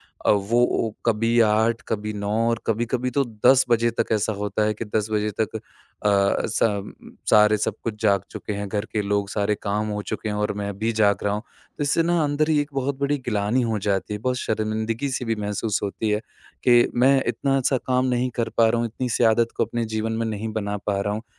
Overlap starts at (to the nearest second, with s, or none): none